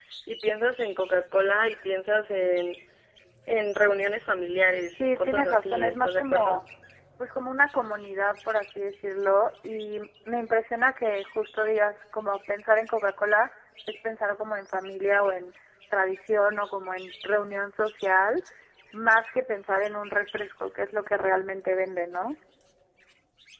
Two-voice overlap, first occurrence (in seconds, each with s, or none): 5.0 s